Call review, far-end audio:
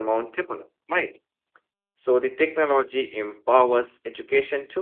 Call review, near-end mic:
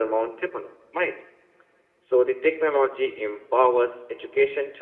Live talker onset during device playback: none

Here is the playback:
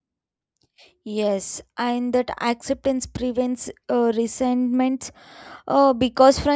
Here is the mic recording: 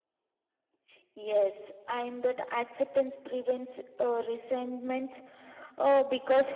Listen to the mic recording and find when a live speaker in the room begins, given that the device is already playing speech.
none

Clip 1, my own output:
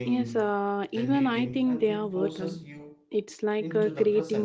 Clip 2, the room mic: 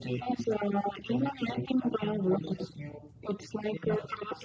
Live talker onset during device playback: none

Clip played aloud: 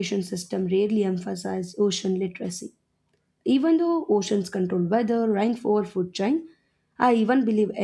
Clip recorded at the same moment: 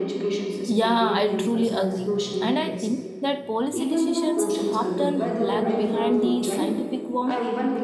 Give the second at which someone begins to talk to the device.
1 s

